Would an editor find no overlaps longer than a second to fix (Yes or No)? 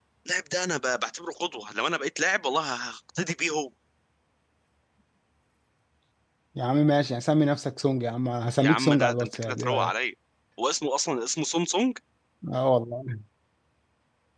No